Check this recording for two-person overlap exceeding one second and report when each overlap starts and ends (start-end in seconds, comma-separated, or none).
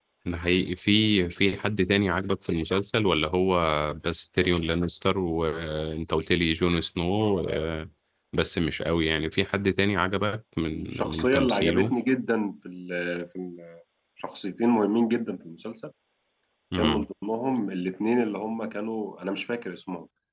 10.6-11.9